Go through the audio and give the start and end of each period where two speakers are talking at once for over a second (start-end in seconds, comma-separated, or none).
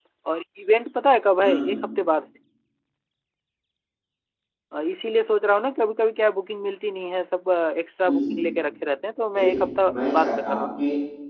9.4-10.7